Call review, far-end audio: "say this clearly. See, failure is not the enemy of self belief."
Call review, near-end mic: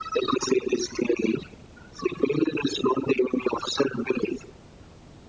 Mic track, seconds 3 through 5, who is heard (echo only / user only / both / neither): echo only